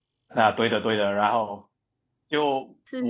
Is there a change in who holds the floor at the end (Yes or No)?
No